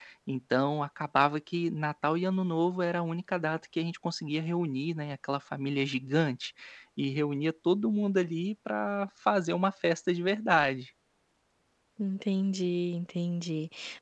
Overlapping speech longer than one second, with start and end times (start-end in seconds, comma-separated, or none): none